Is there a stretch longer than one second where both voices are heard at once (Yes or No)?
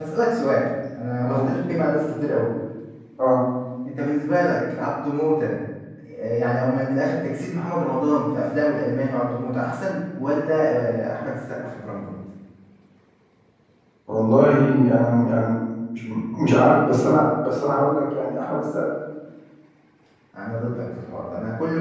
No